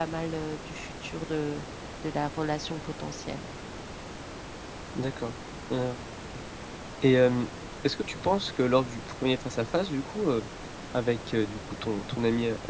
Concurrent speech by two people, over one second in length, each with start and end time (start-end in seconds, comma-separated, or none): none